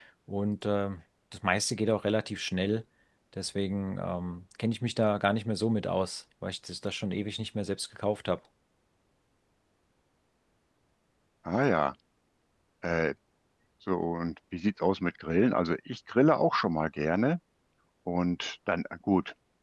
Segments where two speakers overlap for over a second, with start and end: none

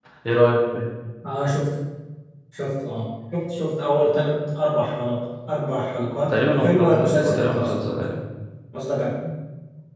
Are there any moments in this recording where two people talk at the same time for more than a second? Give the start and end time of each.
6.3-7.9

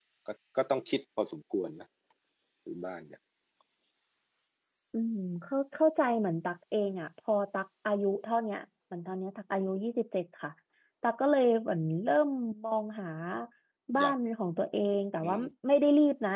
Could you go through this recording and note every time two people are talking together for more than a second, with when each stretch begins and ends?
none

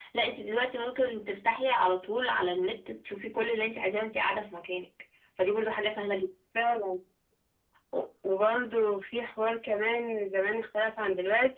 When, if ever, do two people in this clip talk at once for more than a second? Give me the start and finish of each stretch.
none

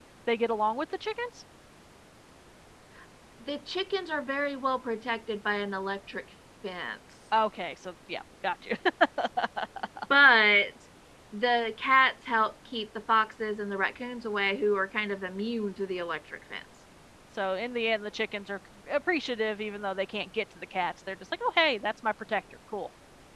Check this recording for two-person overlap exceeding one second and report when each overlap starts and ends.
none

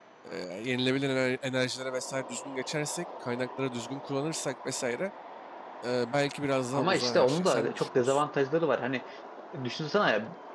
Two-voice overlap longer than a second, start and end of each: 6.7-8.2

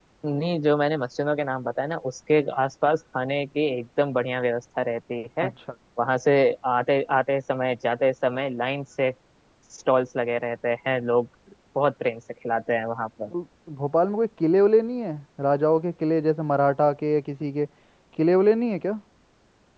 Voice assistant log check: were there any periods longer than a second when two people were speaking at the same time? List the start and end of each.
none

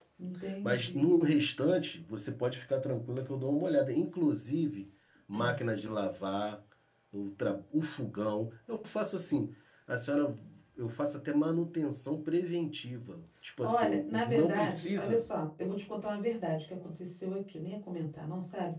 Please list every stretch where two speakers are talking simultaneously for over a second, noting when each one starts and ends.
13.6-15.2

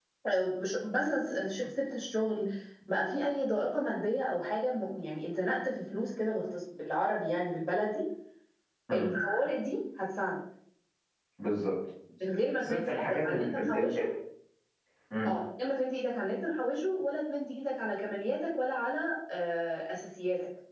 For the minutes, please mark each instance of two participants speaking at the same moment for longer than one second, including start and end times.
12.6-14.0

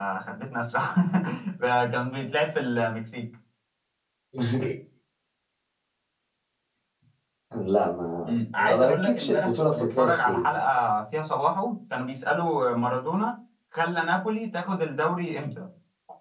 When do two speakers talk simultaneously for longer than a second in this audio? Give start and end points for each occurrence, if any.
8.2-10.5

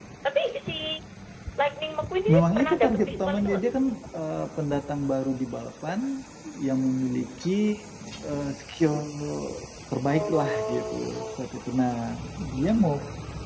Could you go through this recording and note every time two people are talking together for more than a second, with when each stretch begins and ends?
2.3-3.6, 10.1-11.4

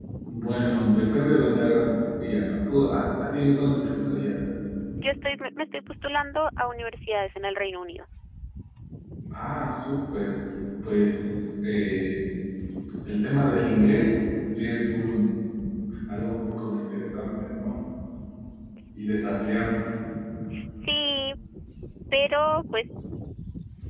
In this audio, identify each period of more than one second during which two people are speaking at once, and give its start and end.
none

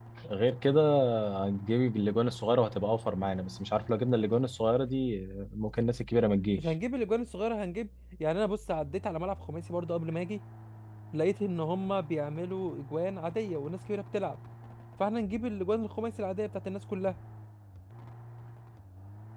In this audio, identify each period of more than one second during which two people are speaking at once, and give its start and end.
none

